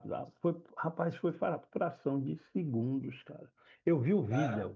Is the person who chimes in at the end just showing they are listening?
Yes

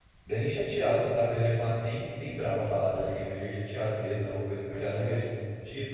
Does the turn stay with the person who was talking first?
Yes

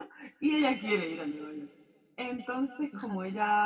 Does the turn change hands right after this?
No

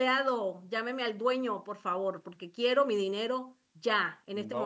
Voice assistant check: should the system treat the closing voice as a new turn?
Yes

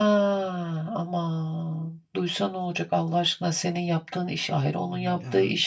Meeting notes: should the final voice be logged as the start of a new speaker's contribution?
No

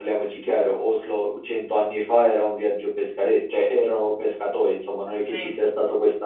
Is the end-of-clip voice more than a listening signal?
No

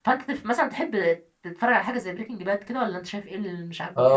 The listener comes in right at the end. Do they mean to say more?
Yes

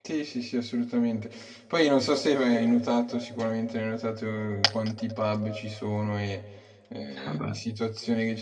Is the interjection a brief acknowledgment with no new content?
Yes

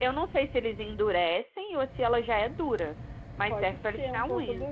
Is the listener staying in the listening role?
No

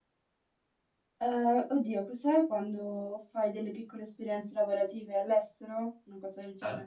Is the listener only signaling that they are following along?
No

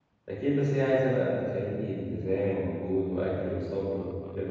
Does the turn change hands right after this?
Yes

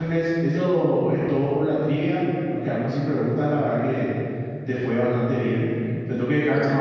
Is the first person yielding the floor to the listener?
No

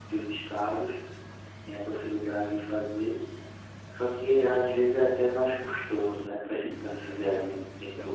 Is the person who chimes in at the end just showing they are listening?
No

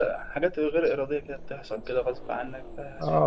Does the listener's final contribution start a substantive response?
Yes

